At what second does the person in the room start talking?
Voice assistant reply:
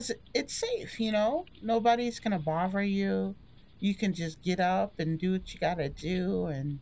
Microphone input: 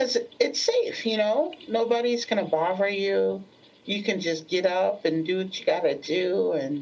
none

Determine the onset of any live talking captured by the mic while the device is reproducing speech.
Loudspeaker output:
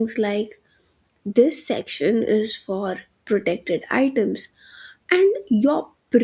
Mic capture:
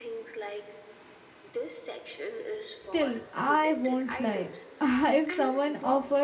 2.8 s

